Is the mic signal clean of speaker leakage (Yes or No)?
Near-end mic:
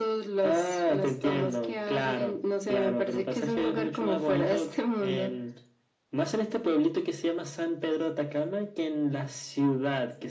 No